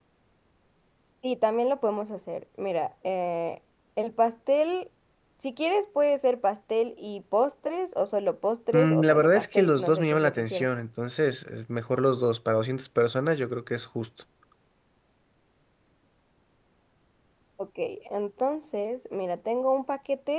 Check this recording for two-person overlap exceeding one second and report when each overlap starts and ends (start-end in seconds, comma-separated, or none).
8.7-10.7